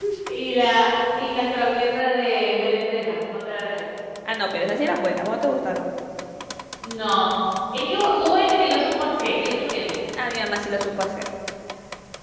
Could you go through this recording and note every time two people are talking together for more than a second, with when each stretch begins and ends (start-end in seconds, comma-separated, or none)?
none